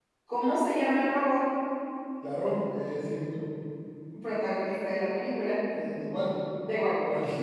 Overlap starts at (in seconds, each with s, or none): none